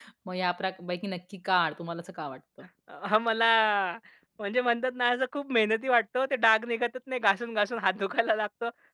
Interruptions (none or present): none